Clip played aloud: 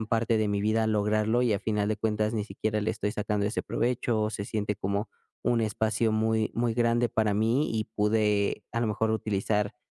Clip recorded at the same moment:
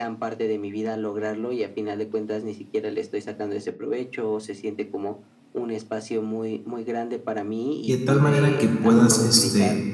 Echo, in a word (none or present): present